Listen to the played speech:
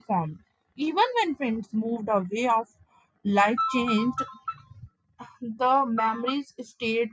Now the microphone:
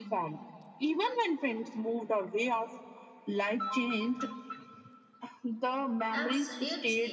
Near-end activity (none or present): present